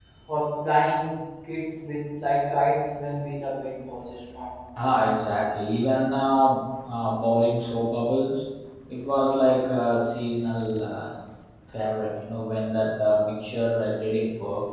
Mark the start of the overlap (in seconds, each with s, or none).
none